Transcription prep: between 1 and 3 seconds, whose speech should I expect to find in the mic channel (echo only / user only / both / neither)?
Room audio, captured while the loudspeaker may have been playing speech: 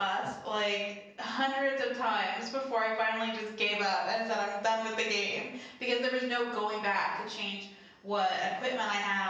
user only